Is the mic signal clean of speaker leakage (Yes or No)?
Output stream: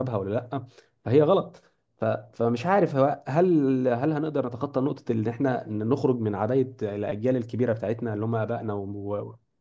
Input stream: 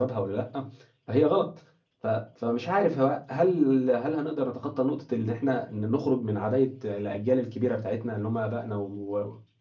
No